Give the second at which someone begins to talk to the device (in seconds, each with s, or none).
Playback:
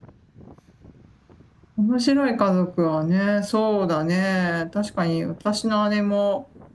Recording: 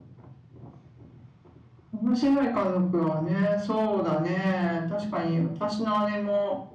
none